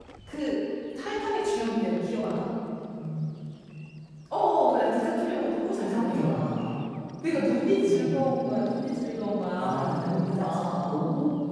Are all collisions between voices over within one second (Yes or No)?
No